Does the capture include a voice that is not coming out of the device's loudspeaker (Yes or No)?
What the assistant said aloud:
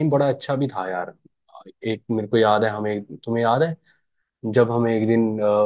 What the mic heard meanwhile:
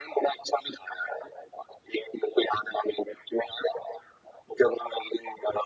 No